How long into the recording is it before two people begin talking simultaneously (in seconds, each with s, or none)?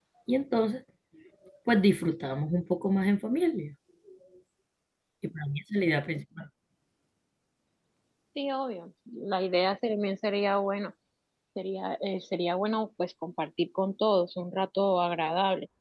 none